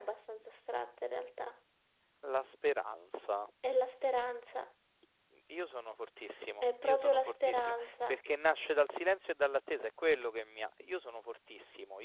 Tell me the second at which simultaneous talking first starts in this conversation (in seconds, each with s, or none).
6.6 s